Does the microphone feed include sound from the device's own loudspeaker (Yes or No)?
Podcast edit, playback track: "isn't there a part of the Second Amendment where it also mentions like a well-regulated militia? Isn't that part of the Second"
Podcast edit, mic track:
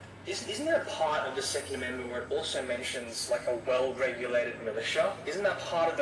Yes